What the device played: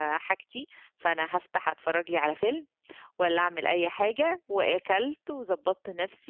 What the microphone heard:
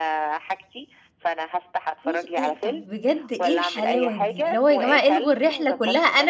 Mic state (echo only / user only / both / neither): both